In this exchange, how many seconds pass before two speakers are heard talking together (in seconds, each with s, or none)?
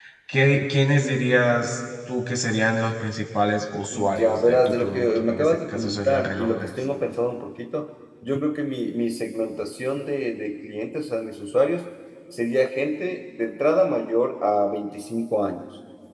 3.9 s